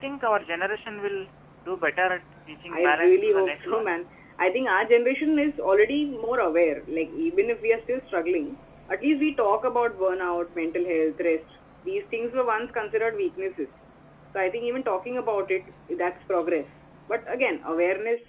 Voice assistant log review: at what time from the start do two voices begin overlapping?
2.7 s

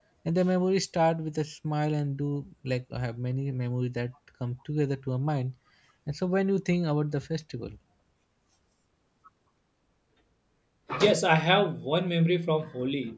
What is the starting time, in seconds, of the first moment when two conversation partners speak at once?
none

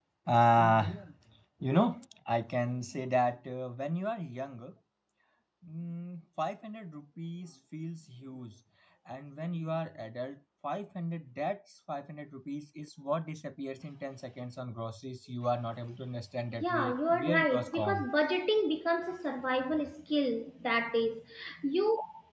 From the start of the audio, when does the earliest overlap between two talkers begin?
16.6 s

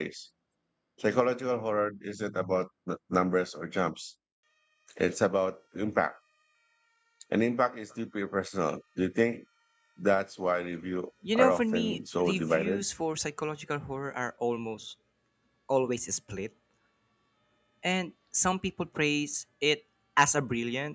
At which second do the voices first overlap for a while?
11.2 s

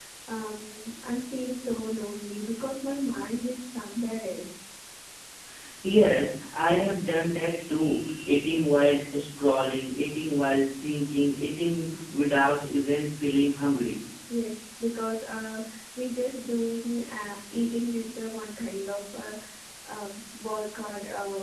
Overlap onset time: none

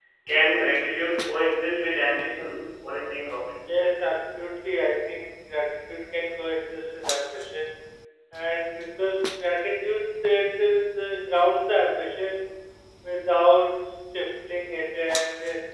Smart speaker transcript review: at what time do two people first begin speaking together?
none

